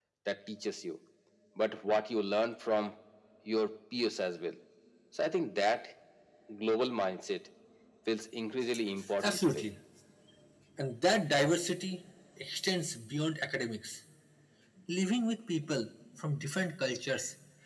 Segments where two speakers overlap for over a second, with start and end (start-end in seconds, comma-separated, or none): none